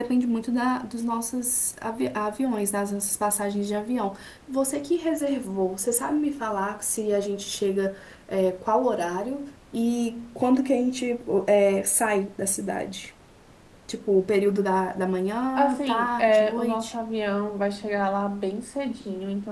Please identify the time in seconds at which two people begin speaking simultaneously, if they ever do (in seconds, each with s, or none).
15.6 s